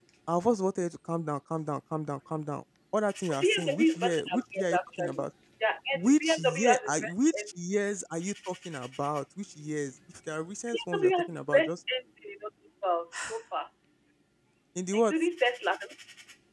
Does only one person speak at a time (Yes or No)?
No